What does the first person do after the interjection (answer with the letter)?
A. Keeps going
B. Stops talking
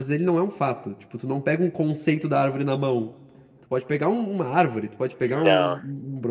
A